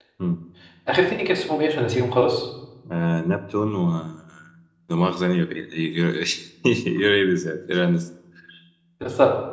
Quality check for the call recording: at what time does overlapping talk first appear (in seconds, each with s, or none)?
none